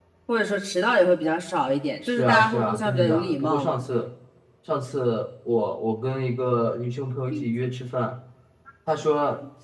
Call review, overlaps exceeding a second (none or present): present